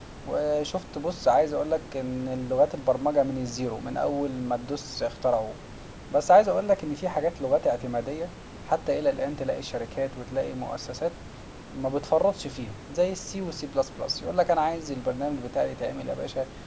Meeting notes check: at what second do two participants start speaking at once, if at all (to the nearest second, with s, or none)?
none